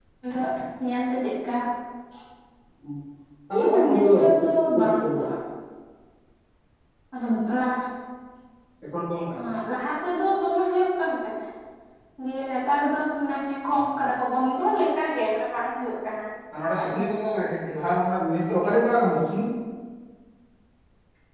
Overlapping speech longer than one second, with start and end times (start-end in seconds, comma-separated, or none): none